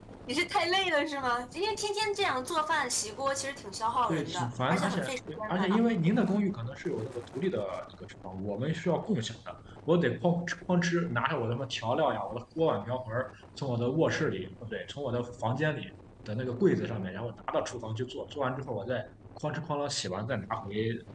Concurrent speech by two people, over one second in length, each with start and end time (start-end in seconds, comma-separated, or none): 4.1-5.8